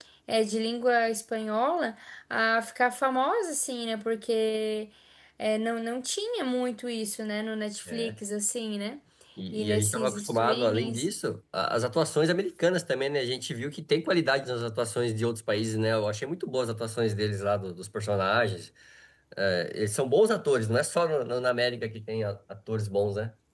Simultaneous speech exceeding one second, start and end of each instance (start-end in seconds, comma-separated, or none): 9.5-11.1